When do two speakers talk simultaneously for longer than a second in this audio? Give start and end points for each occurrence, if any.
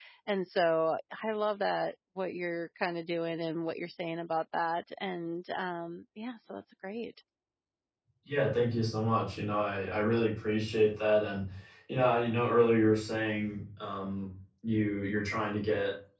none

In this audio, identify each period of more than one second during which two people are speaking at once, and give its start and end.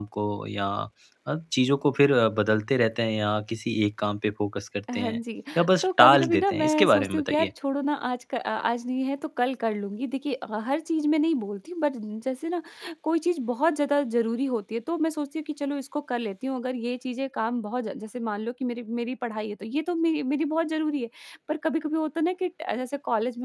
5.8-7.5

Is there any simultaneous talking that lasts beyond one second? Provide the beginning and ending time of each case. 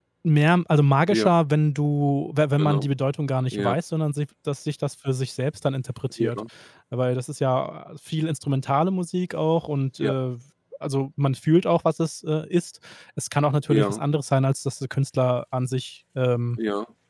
none

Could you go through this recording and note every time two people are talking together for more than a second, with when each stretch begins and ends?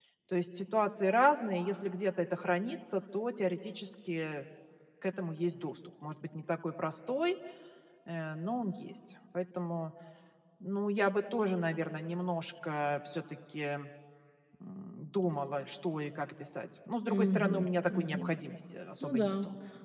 17.1-18.3

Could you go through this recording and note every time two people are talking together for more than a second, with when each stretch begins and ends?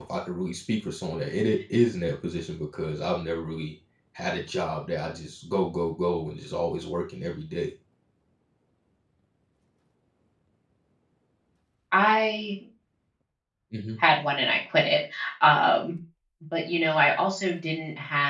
none

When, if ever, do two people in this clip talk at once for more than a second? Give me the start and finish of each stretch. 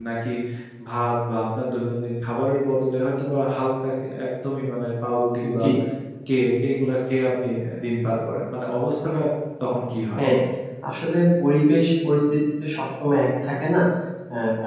none

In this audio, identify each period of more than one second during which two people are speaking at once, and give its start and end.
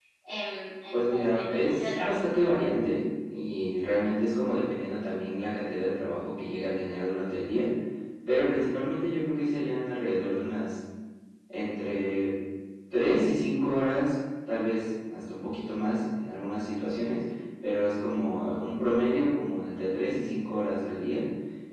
0.9-2.2

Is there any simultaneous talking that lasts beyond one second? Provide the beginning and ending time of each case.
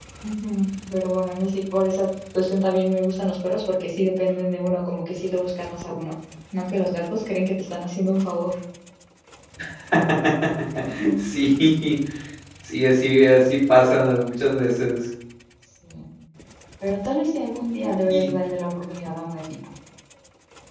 none

